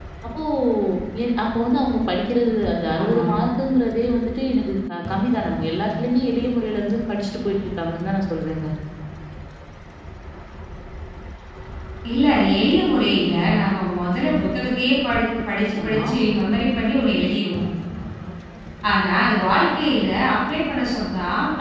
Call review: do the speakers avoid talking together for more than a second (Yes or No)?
Yes